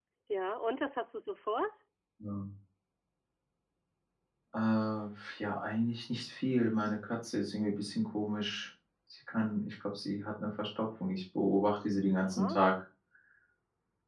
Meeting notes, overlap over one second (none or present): none